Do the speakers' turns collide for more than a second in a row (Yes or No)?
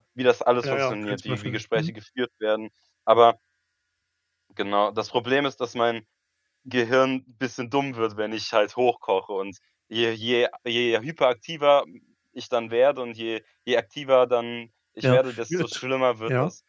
Yes